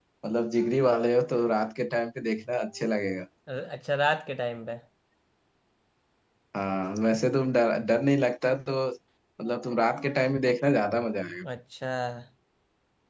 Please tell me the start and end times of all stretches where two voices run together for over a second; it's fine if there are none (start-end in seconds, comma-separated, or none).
none